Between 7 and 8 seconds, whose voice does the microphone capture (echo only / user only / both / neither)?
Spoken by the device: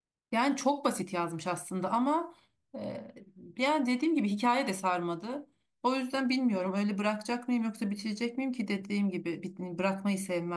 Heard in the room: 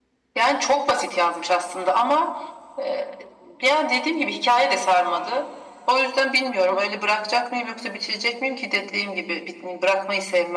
echo only